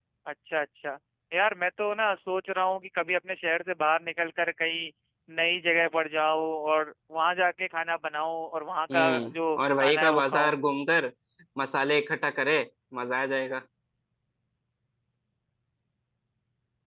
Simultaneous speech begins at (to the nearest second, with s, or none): 9 s